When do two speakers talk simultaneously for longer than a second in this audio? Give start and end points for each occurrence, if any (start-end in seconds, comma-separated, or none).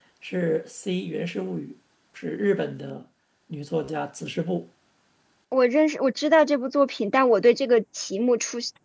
none